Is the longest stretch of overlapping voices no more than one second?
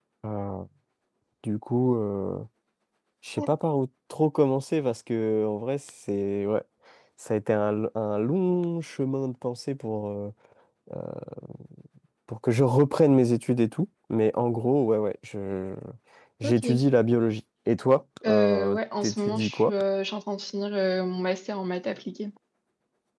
No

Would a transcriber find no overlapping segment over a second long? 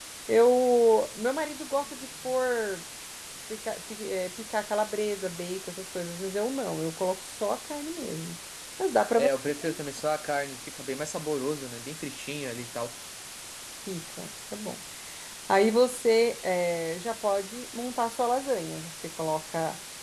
Yes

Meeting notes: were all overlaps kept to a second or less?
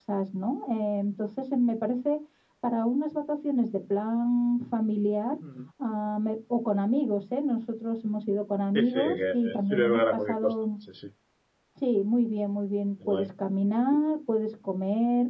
No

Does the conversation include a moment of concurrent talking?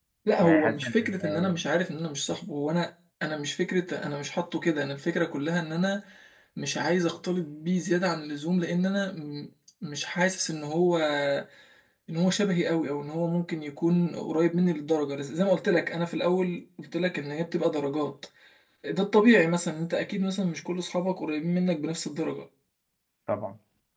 Yes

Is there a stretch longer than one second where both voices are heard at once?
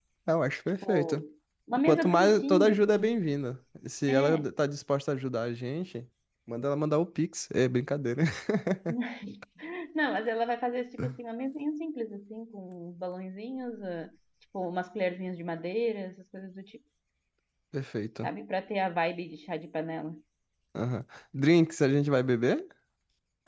Yes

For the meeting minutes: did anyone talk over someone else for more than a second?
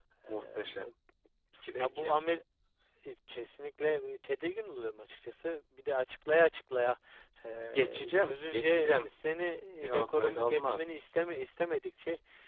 Yes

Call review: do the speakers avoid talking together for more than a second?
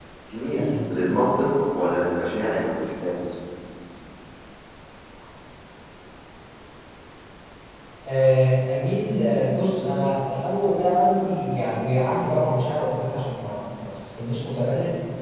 Yes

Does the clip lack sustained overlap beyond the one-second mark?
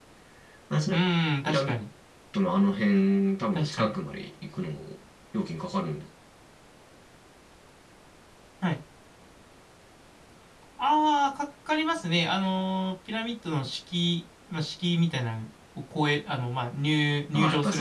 Yes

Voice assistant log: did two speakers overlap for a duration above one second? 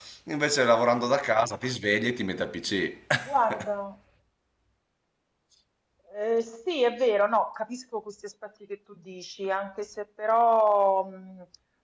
No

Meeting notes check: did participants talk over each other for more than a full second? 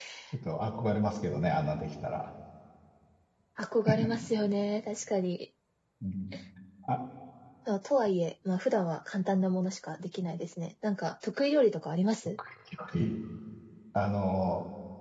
No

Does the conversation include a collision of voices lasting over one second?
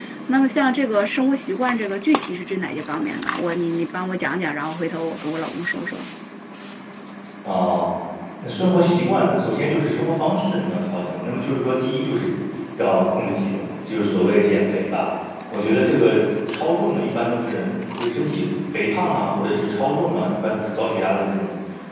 No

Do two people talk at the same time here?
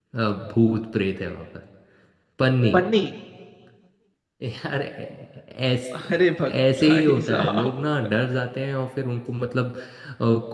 Yes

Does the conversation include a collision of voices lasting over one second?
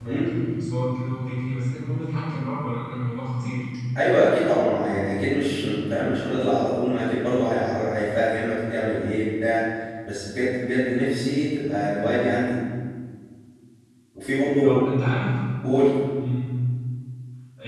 No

